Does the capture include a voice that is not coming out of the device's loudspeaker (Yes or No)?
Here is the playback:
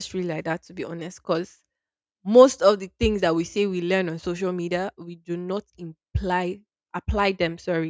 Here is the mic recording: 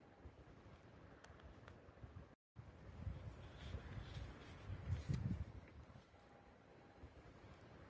No